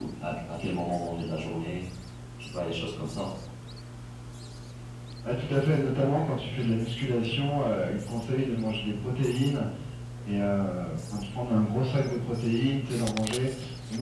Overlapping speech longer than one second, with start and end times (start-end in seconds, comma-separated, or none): none